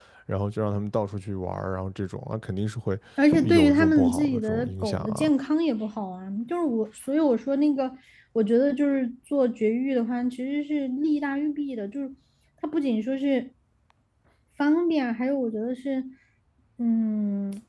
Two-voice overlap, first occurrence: 3.4 s

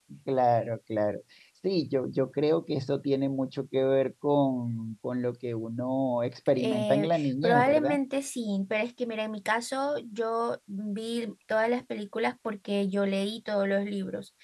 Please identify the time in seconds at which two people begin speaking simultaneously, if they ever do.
6.6 s

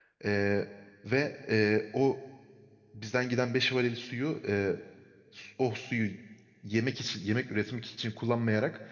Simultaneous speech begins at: none

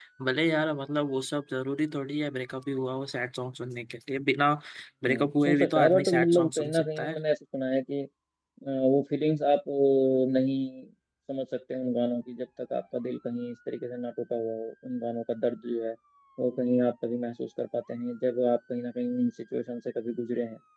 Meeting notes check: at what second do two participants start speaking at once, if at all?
5.1 s

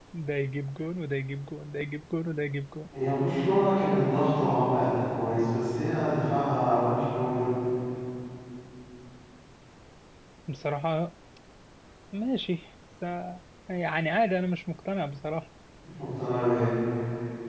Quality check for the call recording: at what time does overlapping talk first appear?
none

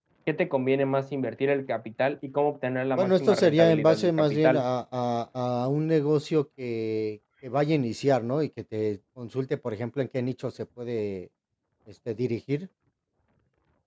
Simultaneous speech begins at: 3.0 s

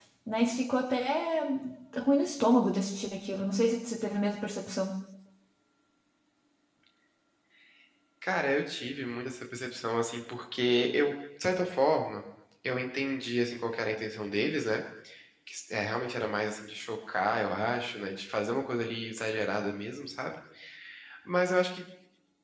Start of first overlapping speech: none

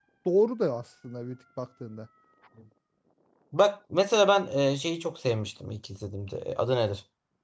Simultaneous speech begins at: none

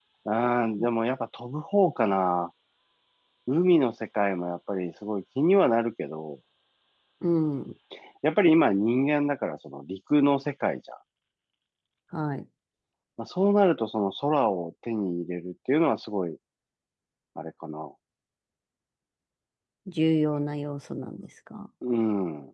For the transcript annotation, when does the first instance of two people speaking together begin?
none

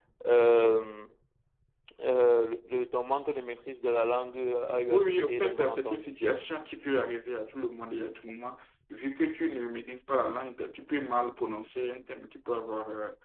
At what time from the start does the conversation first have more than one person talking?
4.9 s

